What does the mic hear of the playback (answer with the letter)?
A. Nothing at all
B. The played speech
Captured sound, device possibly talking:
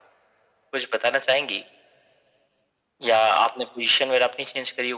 B